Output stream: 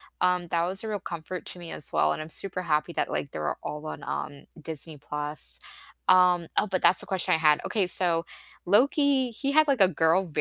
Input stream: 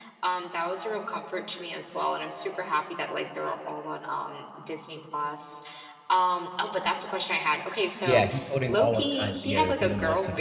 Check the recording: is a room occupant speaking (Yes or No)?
Yes